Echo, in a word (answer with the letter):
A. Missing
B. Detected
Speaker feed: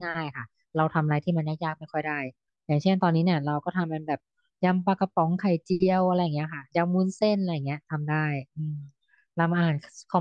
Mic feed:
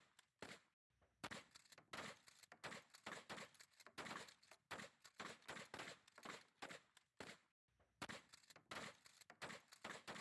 A